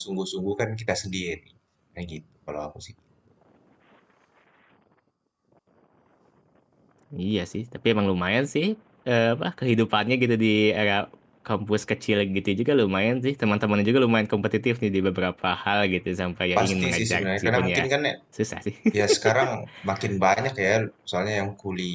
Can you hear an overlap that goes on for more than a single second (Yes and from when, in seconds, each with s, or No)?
Yes, from 16.6 s